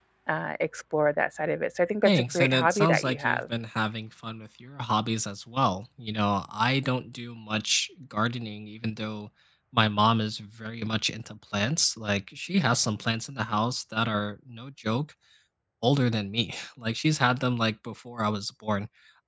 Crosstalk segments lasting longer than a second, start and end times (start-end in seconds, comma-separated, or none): 2.0-3.4